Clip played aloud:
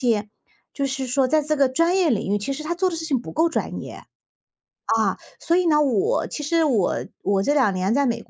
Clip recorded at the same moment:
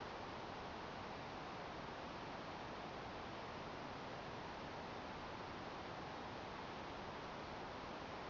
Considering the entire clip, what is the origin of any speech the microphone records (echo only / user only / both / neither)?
neither